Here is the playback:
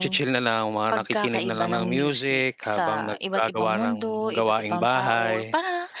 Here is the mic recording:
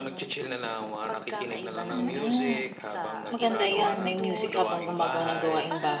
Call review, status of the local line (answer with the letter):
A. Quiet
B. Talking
B